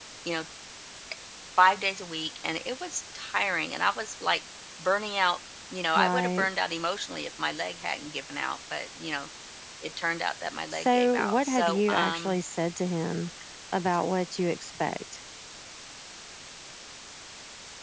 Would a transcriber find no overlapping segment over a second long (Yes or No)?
No